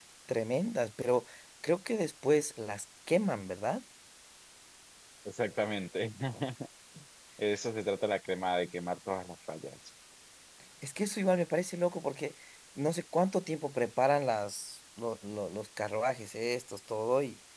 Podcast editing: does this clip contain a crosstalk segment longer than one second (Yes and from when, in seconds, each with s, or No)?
No